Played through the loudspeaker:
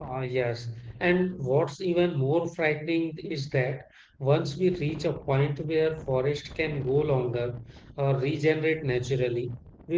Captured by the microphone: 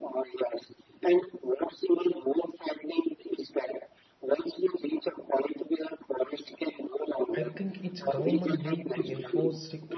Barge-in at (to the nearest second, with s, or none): 7 s